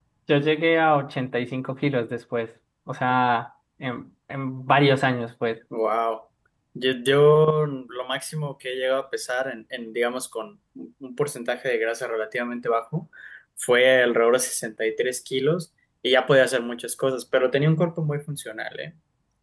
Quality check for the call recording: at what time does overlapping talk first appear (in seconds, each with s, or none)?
none